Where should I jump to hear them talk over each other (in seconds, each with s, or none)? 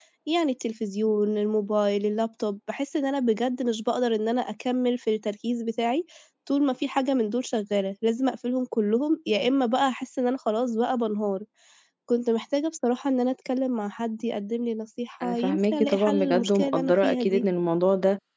15.2 s